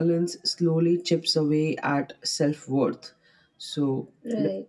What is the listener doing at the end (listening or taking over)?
listening